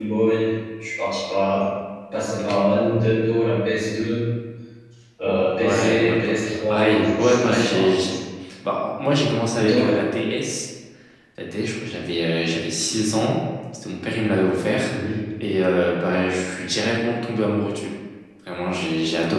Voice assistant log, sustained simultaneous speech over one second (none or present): present